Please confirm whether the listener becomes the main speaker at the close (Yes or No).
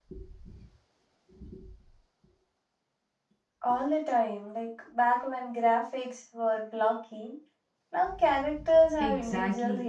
Yes